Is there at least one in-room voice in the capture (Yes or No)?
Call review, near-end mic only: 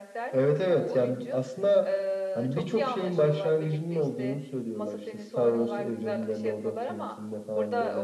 No